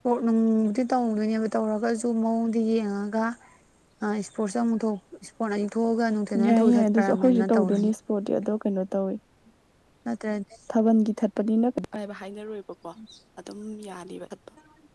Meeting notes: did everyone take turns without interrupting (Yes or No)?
No